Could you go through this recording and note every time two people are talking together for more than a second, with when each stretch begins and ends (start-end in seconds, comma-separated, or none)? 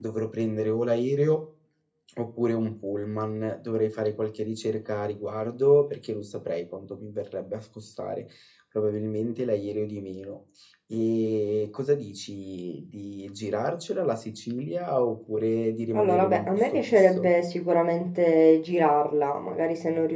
16.0-17.3